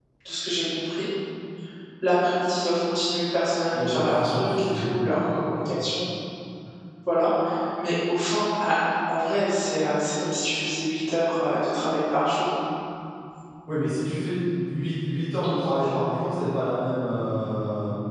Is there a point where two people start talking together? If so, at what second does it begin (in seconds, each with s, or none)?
3.7 s